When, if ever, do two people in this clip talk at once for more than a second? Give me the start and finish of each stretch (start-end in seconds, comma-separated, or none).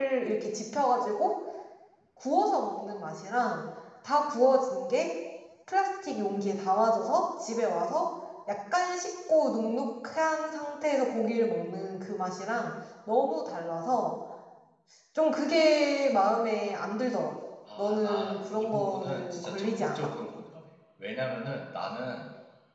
17.8-20.1